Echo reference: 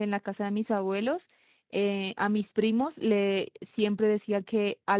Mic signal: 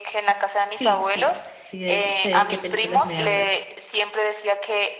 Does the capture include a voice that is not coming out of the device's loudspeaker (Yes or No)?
Yes